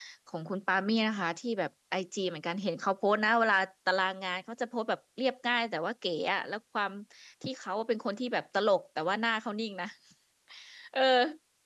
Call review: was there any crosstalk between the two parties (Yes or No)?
No